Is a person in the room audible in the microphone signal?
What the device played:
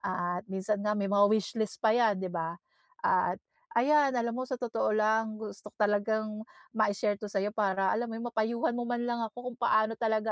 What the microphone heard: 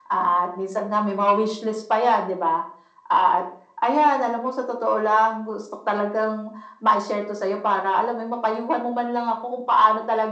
No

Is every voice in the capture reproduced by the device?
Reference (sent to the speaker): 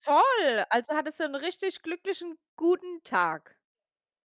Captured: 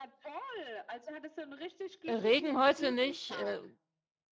No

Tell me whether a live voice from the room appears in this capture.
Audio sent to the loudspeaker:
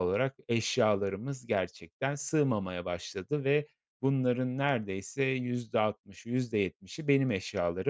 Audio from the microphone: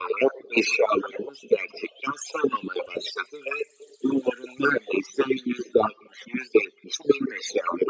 No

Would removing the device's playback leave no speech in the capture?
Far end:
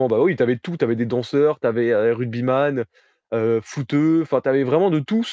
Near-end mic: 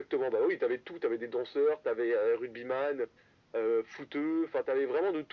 Yes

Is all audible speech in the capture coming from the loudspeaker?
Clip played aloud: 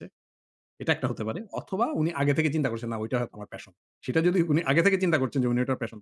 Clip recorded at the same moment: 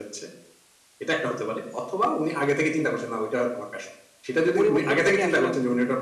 No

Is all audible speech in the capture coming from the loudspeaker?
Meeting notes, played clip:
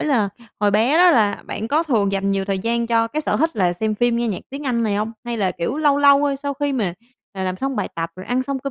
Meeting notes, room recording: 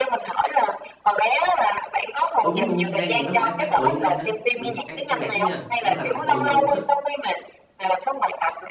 No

